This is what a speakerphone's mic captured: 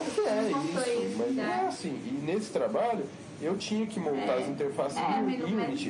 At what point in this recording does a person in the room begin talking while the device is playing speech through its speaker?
none

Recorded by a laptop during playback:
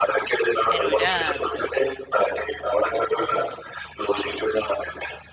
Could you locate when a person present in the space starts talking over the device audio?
1 s

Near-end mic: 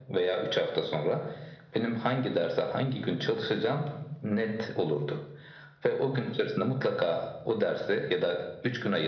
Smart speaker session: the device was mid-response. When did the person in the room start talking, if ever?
none

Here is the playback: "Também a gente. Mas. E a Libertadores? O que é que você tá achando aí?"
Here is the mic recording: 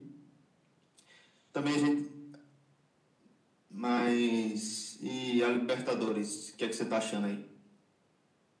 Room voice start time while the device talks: none

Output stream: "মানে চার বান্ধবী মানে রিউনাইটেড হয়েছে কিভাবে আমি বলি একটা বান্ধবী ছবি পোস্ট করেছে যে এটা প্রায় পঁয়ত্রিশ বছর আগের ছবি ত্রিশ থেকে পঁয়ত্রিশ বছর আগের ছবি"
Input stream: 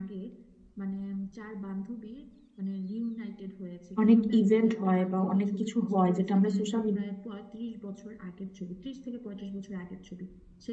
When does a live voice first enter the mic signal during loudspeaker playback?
4 s

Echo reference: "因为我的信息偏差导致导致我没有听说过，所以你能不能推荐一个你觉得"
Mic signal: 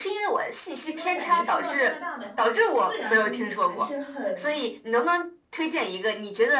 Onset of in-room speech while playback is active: 1 s

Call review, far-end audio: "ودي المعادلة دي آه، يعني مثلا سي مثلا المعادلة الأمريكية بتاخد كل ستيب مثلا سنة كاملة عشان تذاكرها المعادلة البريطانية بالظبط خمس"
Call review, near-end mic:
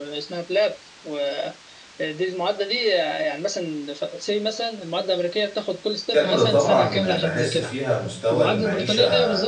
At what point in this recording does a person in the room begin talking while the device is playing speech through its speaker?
6 s

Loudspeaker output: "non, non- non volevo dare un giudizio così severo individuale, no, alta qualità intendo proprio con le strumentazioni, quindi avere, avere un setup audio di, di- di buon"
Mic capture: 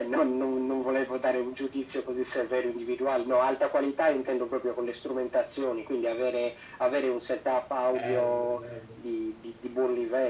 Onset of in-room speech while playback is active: 8 s

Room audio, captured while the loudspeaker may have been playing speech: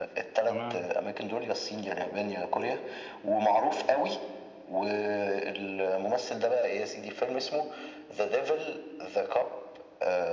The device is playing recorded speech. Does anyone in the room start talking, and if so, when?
0 s

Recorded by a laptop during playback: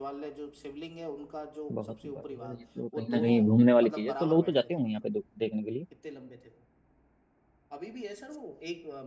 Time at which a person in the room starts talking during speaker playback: 2 s

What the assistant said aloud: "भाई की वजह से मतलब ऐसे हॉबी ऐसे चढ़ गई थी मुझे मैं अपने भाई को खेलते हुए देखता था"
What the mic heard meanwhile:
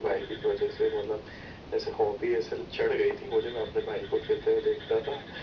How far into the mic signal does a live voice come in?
none

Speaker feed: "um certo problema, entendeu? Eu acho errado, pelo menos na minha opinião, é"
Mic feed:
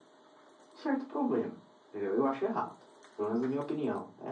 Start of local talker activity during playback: none

